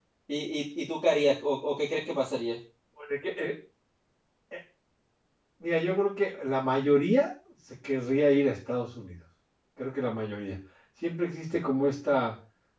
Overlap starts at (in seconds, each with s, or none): none